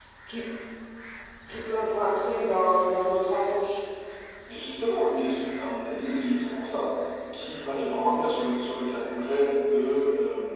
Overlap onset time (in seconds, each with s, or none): none